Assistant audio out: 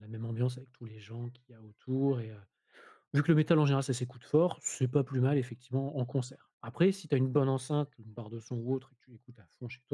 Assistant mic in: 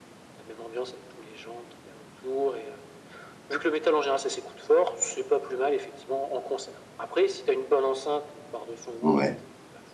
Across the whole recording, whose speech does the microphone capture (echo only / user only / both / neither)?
both